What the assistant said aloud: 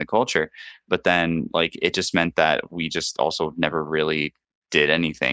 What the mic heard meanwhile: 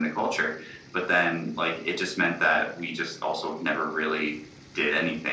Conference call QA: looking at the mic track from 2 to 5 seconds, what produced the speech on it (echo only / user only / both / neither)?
echo only